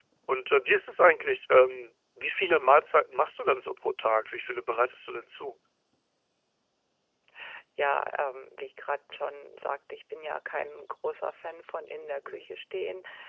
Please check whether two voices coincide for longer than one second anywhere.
No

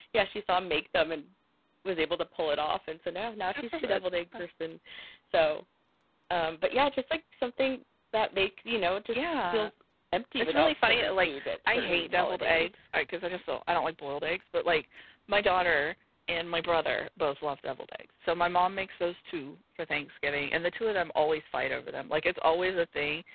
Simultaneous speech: Yes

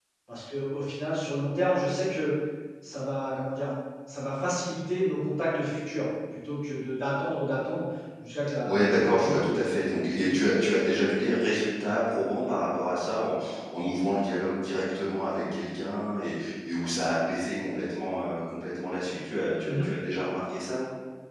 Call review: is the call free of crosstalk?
No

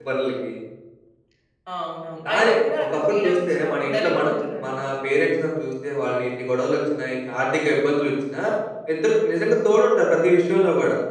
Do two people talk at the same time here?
Yes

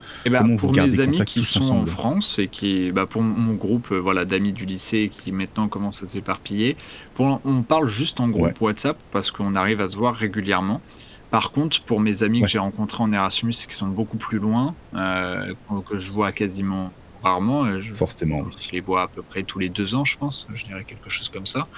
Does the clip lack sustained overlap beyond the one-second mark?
No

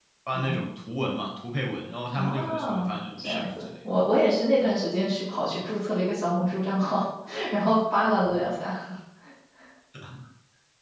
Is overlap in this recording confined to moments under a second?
No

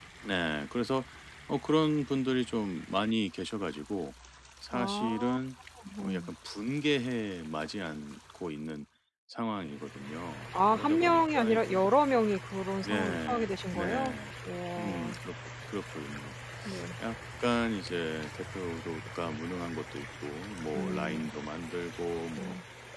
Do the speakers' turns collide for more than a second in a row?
Yes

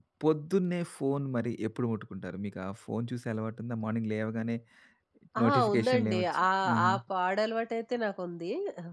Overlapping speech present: Yes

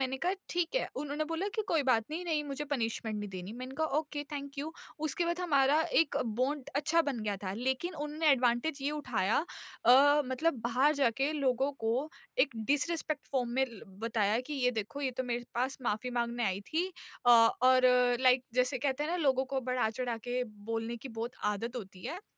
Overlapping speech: No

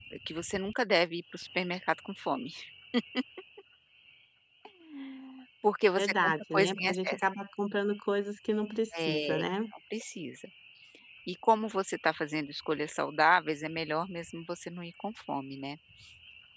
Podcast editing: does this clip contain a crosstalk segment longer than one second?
Yes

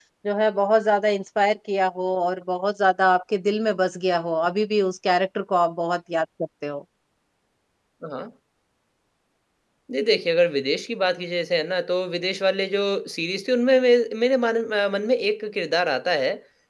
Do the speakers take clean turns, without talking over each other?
Yes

